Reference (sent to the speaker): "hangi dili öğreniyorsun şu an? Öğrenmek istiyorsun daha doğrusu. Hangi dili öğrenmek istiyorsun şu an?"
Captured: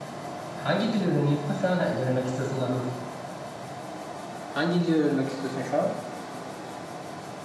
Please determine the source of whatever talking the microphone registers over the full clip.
echo only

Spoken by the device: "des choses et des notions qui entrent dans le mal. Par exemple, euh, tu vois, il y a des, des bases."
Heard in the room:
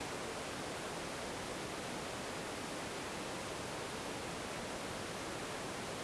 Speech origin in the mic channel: neither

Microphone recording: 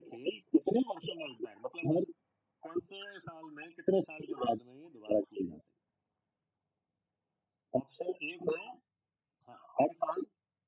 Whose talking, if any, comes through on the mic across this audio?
echo only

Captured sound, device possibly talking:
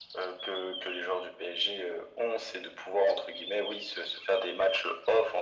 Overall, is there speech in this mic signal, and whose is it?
echo only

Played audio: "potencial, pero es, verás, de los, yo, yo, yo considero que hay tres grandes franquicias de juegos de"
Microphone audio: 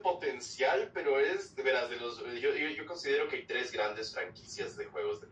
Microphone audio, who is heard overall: echo only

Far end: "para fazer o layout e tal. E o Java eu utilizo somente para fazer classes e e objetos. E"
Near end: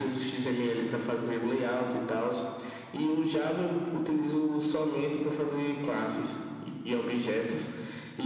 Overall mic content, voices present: echo only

